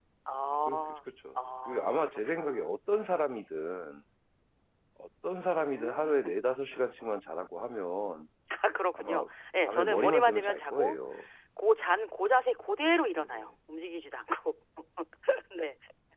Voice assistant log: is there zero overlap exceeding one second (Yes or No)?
No